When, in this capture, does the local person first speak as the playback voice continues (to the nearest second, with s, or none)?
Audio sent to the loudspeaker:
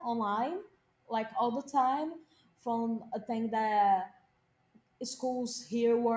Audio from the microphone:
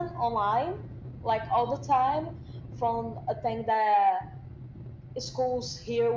none